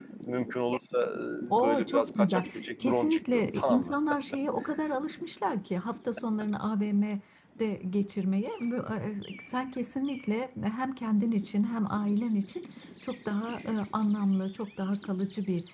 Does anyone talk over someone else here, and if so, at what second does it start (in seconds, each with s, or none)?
1.6 s